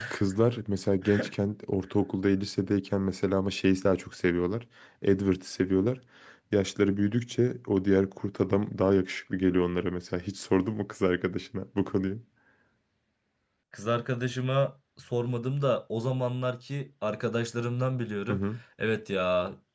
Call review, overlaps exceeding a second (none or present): none